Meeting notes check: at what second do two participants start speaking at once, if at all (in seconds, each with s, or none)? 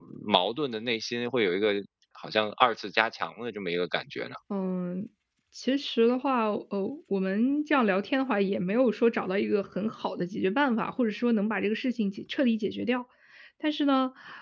none